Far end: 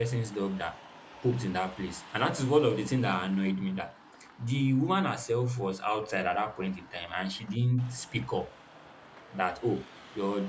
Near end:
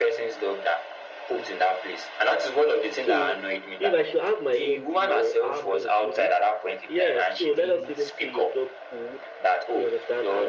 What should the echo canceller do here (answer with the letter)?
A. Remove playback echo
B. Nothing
A